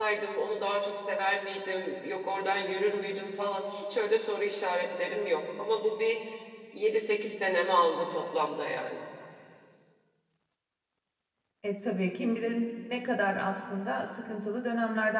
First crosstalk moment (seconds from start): none

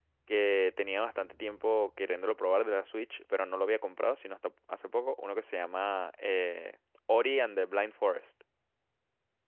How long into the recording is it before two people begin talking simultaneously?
none

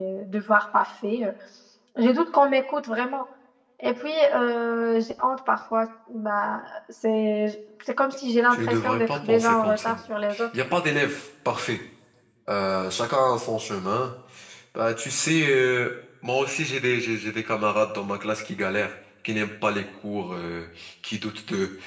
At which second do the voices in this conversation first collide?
8.5 s

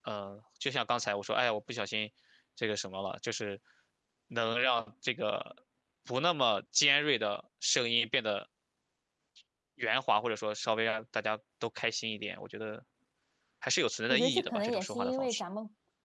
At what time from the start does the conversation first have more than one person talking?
14.1 s

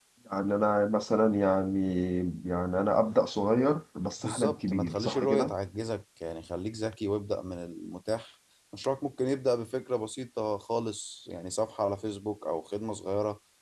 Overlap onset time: 4.2 s

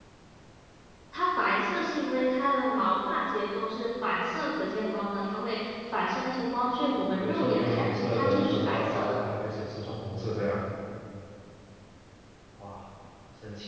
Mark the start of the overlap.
7.0 s

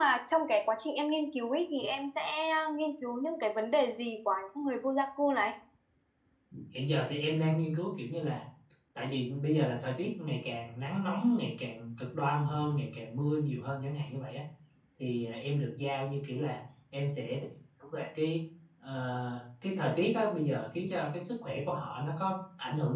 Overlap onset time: none

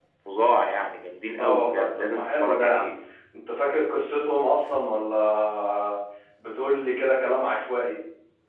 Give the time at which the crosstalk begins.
1.3 s

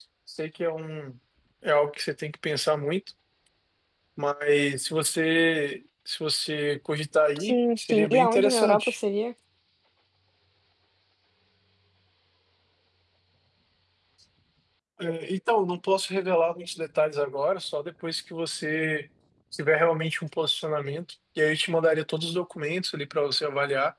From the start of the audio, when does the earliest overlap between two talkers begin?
7.4 s

